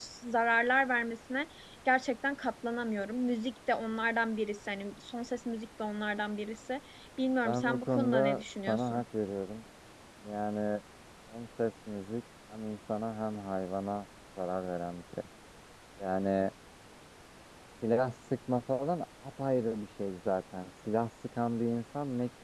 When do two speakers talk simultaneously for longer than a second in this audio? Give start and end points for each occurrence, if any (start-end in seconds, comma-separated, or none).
7.4-9.0